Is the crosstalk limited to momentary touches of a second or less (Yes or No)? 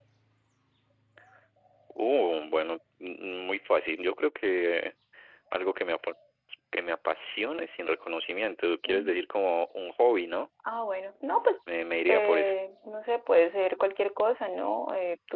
Yes